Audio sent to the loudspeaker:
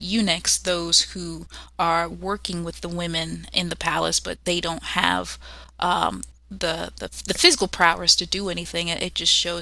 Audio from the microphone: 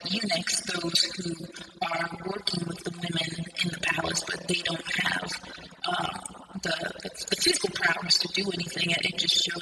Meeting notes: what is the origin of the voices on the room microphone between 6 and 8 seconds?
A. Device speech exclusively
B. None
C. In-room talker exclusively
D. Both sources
A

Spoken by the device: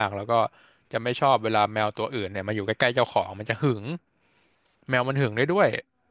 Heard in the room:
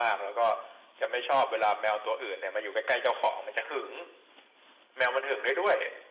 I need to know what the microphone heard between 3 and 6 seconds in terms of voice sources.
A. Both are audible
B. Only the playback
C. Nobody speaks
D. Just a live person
B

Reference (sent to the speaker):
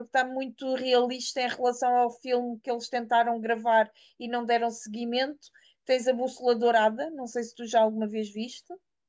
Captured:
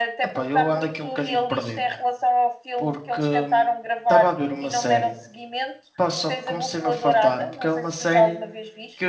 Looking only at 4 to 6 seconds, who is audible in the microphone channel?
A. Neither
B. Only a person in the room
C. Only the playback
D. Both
D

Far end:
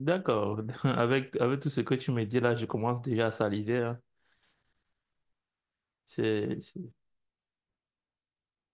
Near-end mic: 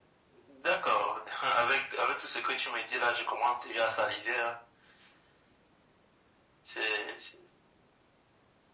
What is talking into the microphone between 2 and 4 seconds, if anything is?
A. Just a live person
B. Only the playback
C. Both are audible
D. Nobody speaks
B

